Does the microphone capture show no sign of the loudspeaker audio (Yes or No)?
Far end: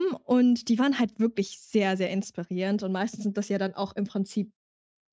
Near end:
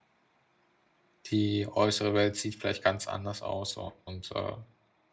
Yes